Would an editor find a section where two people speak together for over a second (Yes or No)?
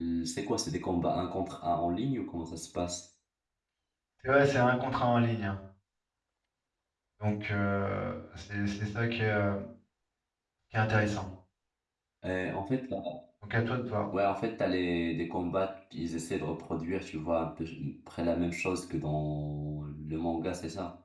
No